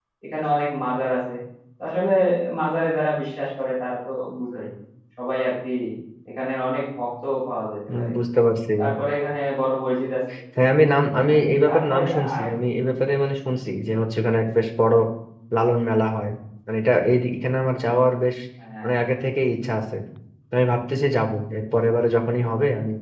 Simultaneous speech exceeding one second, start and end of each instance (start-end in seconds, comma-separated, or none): 11.2-12.5